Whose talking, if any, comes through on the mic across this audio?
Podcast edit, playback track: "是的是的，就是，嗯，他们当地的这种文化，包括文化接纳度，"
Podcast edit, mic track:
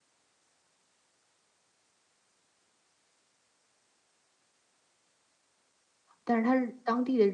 user only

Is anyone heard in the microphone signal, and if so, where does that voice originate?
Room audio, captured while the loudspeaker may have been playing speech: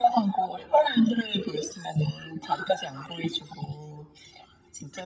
echo only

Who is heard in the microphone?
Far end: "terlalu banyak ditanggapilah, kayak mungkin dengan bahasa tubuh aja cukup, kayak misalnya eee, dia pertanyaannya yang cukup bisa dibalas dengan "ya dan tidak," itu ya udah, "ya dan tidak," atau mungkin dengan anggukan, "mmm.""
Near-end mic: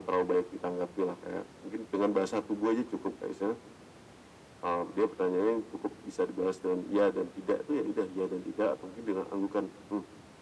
echo only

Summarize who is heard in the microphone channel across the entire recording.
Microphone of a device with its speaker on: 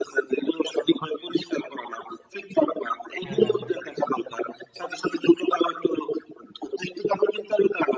both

